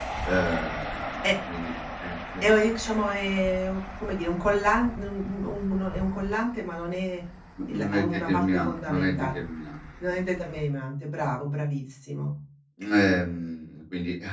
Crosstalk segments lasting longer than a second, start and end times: 7.7-9.3

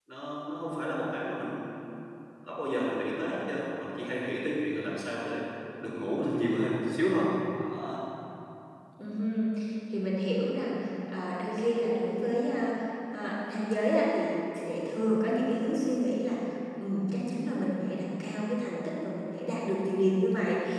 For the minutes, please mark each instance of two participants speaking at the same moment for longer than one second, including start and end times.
none

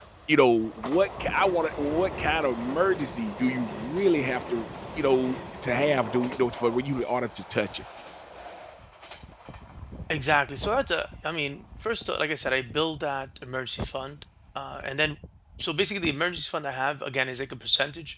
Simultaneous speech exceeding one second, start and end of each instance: none

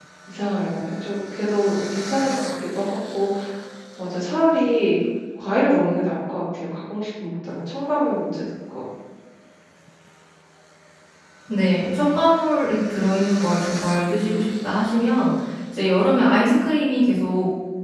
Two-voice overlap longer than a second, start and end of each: none

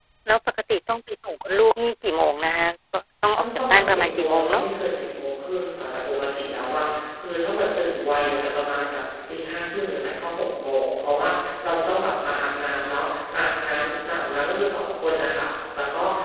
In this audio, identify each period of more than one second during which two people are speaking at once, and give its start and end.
3.4-4.6

